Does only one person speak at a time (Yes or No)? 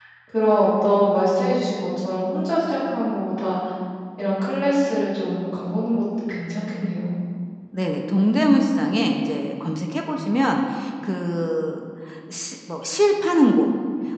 Yes